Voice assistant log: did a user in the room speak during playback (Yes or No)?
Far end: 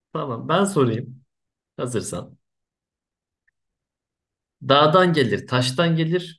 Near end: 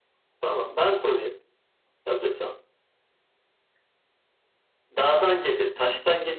No